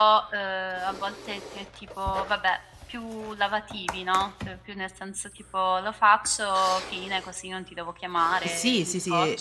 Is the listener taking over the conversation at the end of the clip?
Yes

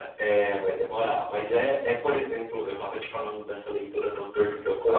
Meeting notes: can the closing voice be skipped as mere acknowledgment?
Yes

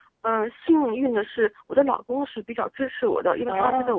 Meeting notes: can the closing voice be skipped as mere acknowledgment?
Yes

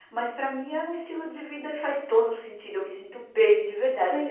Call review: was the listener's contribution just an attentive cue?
No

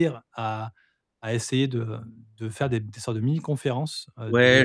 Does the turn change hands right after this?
Yes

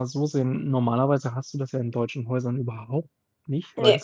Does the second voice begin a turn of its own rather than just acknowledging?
No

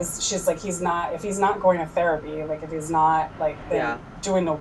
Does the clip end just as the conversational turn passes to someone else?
No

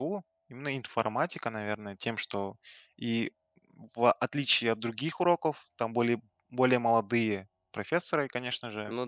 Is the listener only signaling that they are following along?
Yes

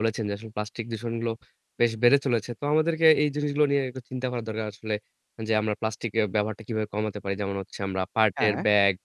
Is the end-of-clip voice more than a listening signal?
No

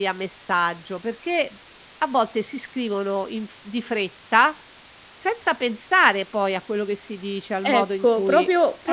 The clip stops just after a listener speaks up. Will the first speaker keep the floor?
No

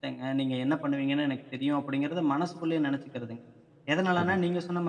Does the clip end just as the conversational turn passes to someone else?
No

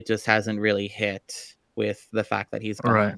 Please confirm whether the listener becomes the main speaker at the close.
Yes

